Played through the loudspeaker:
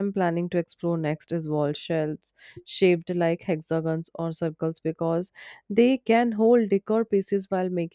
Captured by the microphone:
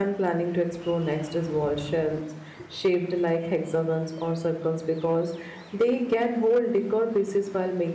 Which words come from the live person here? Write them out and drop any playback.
none

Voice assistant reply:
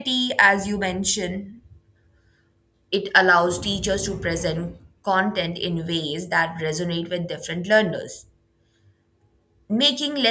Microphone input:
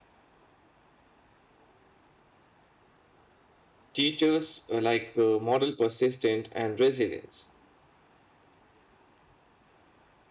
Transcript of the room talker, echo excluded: teachers uh, like uh, model persistent and resilience

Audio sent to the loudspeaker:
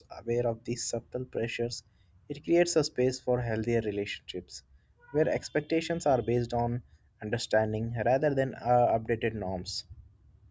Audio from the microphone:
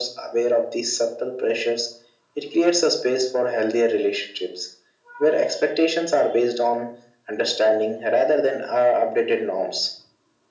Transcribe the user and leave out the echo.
none

